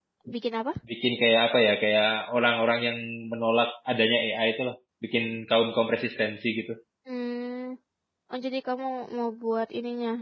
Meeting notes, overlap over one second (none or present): none